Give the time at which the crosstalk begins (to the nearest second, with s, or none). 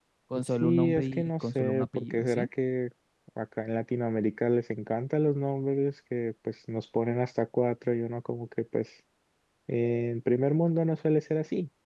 1 s